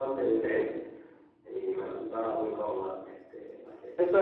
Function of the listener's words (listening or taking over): taking over